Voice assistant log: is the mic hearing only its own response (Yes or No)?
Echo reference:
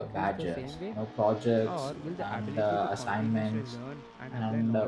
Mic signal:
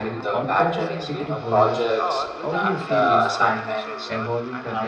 No